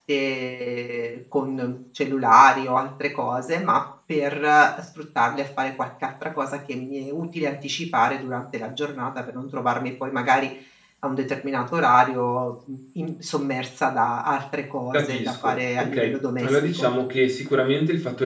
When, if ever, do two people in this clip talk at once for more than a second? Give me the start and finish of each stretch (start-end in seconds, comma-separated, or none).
14.9-16.9